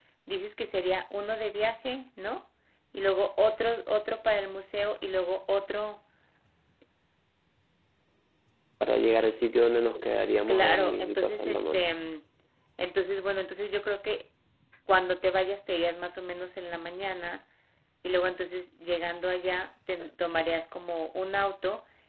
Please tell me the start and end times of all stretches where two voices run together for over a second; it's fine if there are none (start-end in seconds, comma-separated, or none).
10.5-11.8